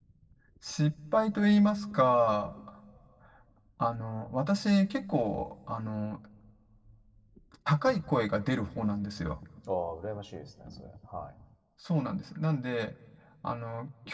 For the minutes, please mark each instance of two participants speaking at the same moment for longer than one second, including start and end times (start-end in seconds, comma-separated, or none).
none